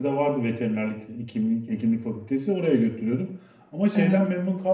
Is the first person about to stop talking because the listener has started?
No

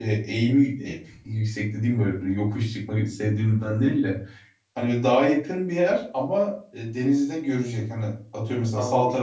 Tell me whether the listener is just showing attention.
Yes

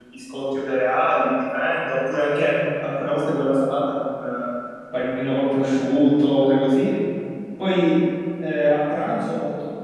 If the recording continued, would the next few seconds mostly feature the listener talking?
No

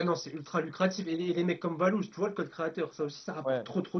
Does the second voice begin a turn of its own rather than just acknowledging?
Yes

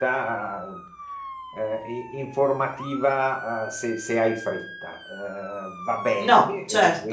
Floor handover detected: No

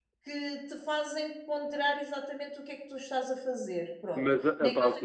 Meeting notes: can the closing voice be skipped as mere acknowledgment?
No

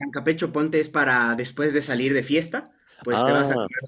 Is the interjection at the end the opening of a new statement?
No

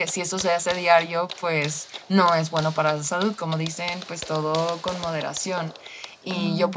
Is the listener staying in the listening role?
Yes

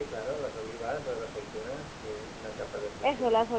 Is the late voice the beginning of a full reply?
Yes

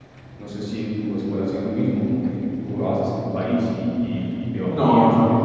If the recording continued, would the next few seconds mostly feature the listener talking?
Yes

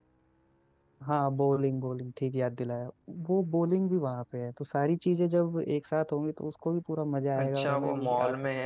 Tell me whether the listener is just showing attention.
No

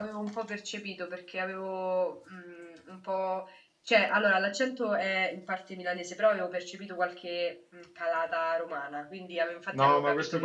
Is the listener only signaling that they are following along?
No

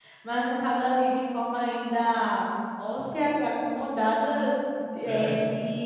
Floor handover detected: No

